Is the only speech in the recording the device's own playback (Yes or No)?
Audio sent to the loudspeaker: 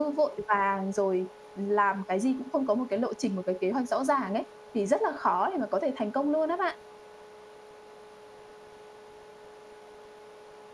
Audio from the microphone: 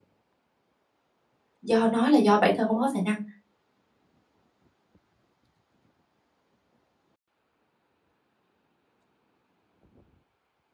No